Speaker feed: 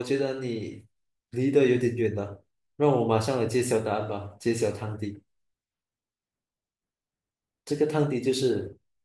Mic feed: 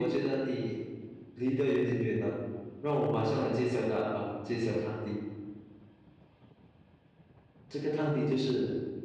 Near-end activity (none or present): none